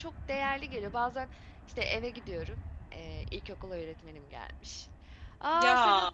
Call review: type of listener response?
listening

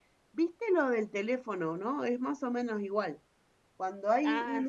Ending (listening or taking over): listening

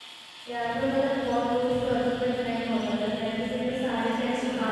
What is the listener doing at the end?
listening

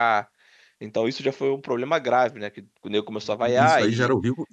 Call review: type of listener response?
taking over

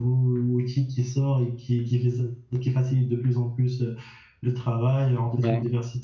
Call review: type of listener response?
listening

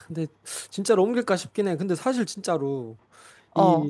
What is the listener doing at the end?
listening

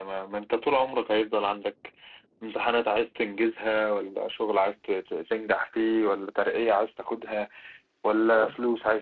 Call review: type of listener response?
listening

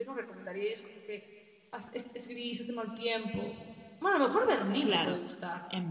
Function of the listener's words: taking over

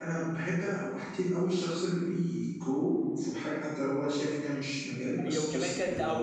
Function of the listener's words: taking over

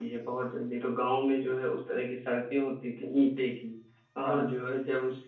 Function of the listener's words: listening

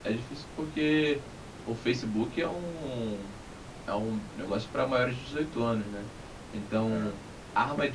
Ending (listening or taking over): listening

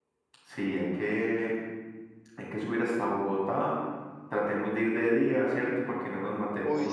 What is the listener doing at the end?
taking over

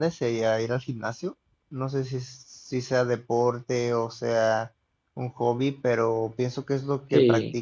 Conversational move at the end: listening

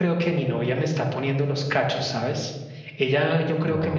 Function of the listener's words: listening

